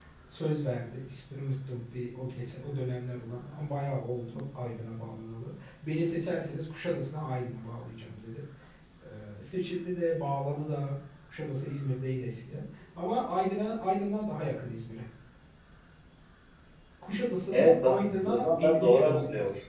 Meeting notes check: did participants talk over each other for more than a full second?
Yes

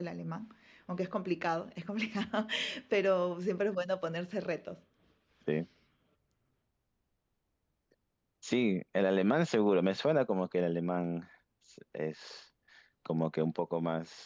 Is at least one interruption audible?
No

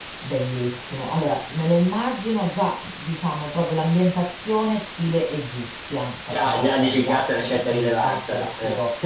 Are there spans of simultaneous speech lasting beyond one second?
Yes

